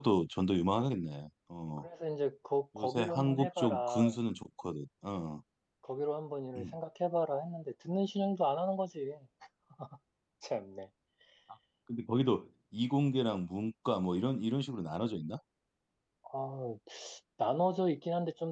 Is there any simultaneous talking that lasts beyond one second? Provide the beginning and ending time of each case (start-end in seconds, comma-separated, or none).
2.8-4.1